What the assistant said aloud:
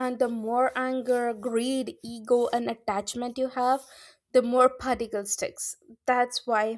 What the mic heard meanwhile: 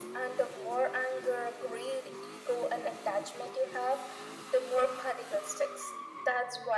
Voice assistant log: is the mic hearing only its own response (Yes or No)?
Yes